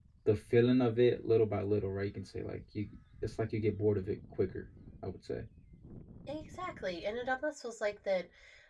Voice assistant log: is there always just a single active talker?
Yes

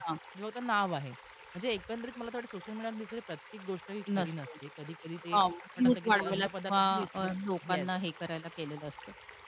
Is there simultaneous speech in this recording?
Yes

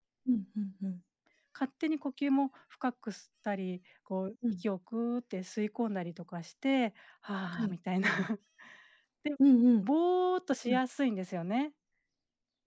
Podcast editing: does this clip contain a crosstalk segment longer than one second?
No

